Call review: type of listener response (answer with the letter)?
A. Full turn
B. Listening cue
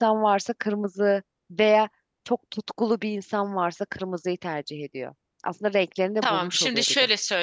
A